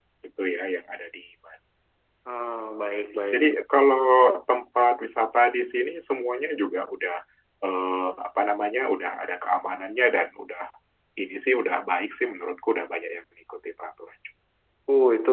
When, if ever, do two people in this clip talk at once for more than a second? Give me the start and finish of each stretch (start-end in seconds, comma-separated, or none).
none